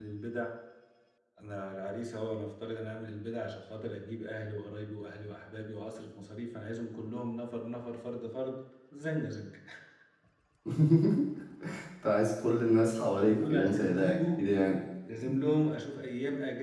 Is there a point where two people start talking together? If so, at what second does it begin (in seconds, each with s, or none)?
13.2 s